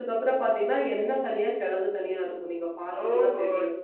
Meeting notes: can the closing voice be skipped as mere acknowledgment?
No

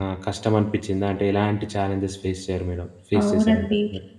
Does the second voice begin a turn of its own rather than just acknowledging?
Yes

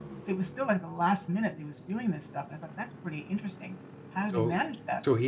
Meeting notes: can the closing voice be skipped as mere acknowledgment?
No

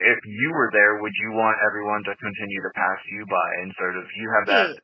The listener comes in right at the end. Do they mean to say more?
No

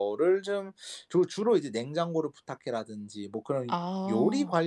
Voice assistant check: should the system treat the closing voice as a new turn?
No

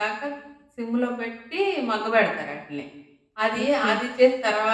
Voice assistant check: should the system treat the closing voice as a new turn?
No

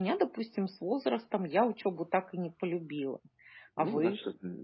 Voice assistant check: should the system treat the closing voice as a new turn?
Yes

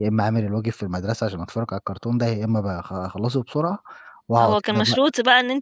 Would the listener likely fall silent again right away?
No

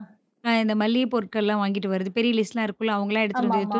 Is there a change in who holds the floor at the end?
No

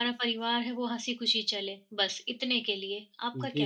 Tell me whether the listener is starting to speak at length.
Yes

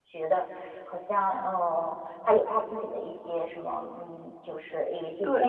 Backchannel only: No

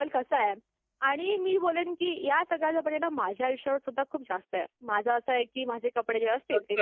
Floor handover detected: Yes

